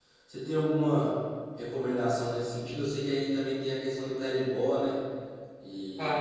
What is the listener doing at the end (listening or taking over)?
taking over